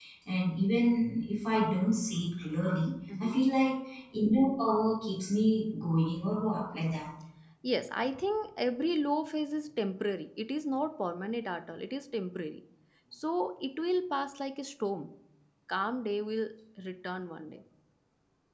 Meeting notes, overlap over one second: none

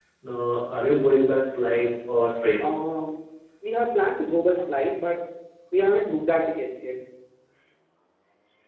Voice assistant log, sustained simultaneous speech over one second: none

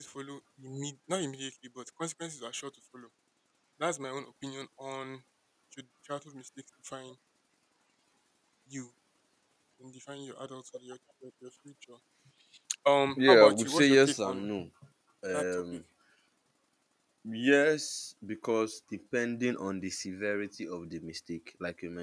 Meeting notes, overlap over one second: present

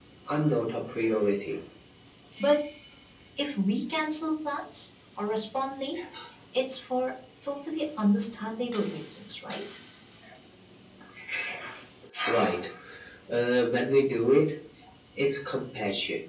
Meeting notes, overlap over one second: none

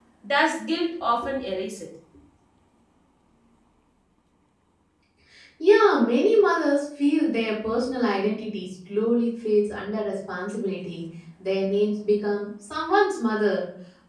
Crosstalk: none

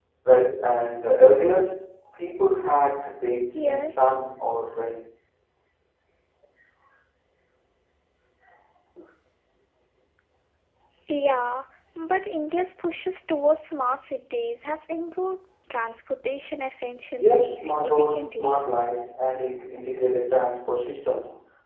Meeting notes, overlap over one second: present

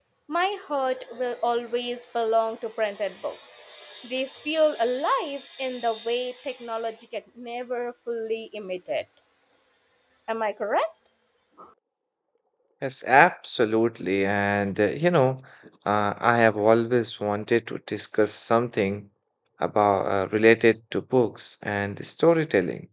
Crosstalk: none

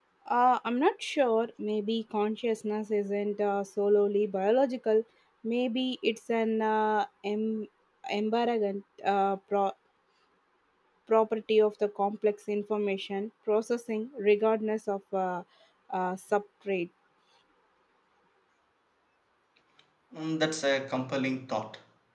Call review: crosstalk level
none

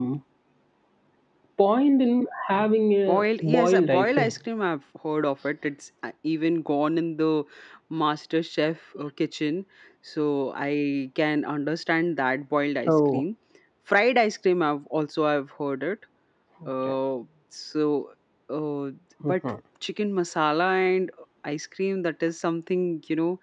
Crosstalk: present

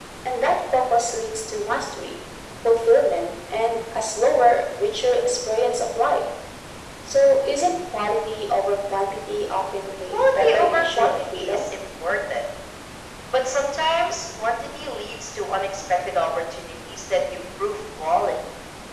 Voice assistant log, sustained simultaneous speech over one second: present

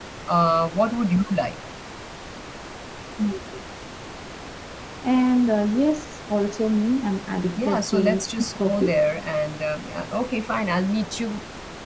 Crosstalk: present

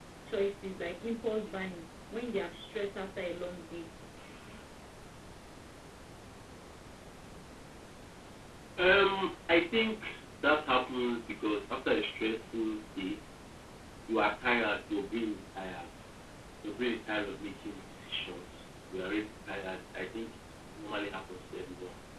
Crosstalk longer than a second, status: none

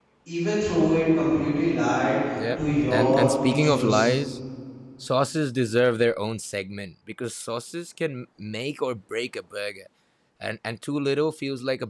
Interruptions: present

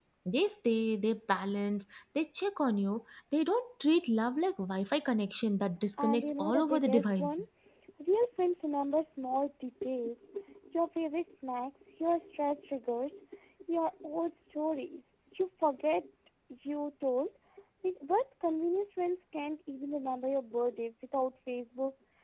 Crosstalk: present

